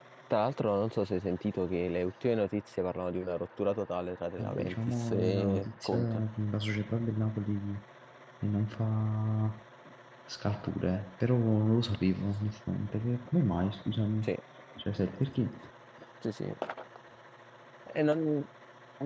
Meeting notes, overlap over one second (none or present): present